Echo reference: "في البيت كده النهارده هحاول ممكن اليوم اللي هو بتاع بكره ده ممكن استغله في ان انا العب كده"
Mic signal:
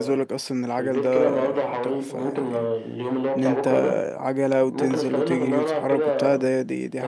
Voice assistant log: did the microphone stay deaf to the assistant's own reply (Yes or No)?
No